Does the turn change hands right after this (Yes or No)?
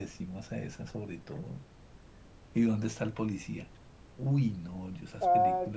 No